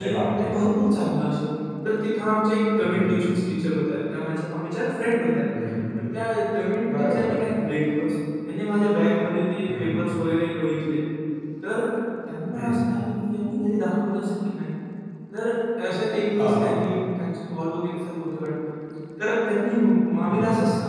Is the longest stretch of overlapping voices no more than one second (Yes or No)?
Yes